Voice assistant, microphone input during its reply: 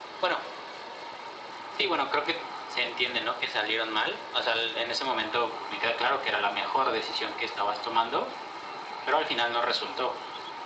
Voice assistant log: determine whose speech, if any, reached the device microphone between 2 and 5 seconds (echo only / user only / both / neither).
echo only